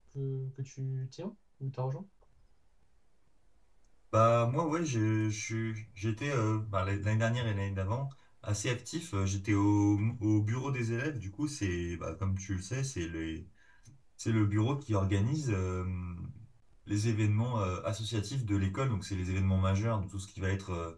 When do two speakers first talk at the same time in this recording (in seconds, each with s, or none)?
none